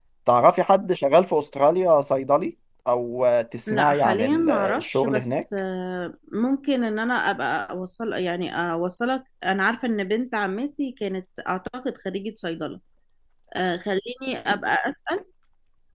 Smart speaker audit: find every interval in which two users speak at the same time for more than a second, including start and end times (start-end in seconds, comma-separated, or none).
3.7-5.4